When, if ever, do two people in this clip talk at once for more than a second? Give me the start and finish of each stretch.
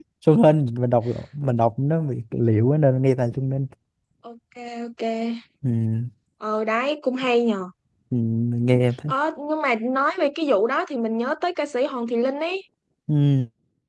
none

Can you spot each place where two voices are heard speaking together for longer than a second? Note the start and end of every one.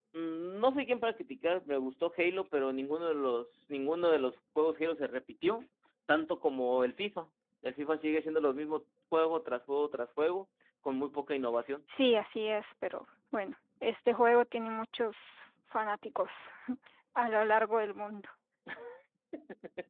none

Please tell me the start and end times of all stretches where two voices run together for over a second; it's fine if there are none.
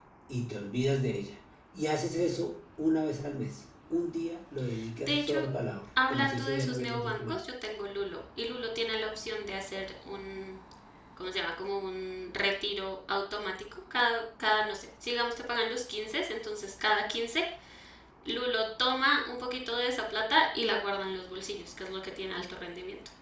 6.1-7.4

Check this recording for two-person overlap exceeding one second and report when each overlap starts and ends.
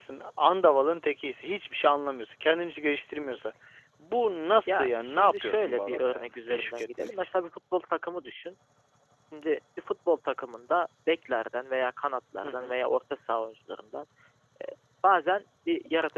4.7-7.3

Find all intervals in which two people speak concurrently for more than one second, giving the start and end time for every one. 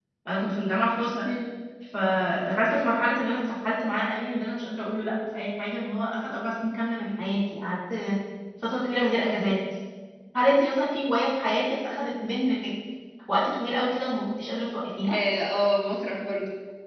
none

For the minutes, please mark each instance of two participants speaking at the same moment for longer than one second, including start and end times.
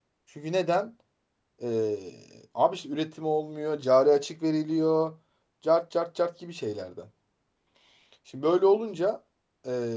none

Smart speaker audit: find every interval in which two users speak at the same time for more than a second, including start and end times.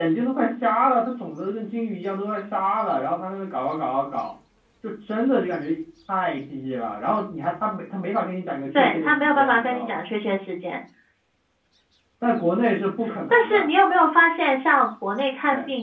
8.7-10.0

